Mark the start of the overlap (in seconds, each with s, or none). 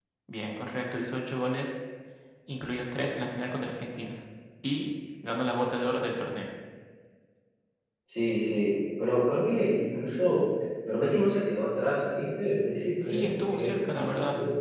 13.0 s